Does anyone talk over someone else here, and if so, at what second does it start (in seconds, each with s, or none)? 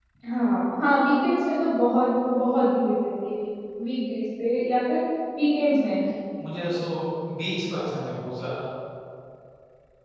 none